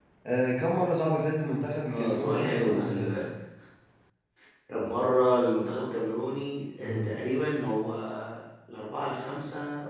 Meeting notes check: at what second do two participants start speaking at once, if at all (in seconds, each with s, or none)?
1.9 s